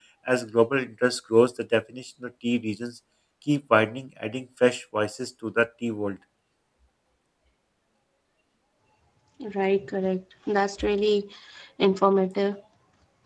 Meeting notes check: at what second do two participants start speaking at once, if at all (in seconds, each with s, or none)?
none